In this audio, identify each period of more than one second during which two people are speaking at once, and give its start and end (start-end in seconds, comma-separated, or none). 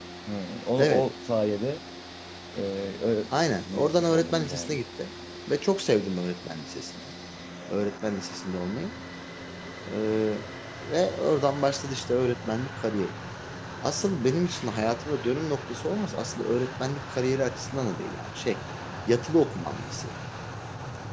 3.6-4.8